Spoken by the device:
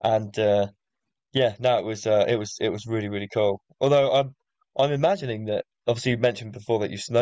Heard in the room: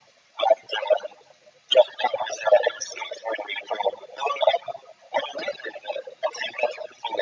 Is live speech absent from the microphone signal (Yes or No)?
Yes